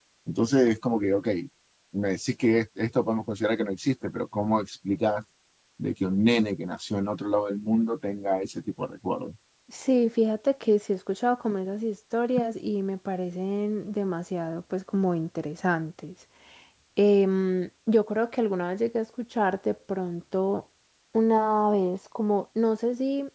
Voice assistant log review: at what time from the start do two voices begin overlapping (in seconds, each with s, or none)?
none